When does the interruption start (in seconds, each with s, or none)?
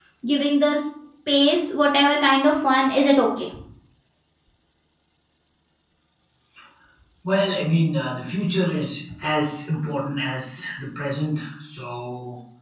none